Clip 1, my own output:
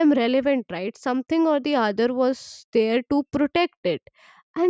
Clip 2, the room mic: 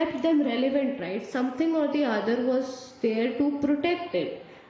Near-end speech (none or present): none